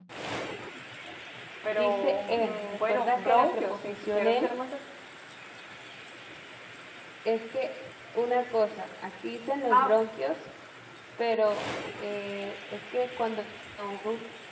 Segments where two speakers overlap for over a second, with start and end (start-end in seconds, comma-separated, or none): 1.8-4.5